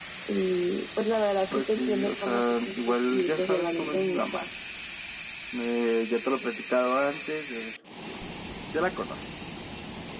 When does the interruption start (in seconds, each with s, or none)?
1.4 s